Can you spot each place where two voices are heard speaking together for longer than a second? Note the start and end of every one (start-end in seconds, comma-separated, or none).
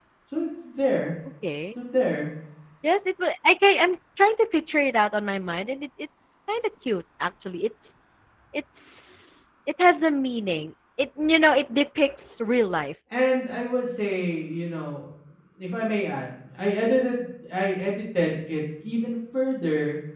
none